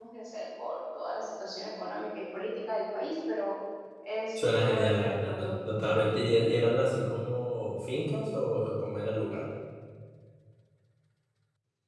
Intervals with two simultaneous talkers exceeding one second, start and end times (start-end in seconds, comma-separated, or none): 4.4-6.3